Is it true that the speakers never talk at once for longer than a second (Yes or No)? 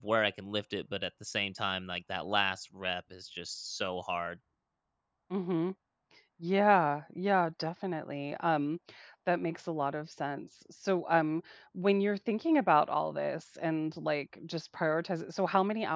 Yes